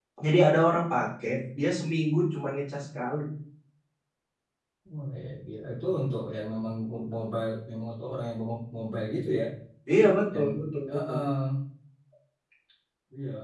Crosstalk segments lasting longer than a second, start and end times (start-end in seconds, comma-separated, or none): none